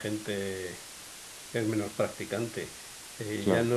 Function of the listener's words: listening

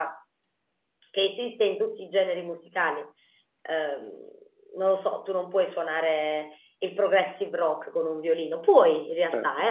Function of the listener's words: listening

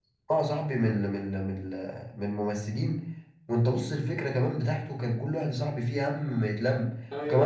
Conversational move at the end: taking over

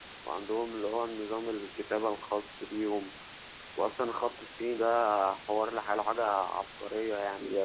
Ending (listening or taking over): taking over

